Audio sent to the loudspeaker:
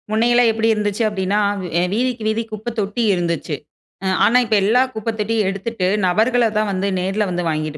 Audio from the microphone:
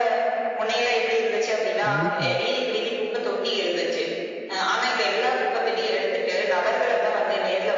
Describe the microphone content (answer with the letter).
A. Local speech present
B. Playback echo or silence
A